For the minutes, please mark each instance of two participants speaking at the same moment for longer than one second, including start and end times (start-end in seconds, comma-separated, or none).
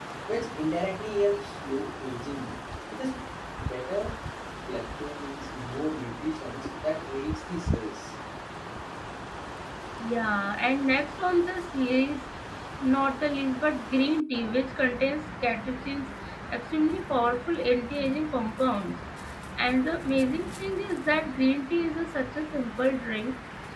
none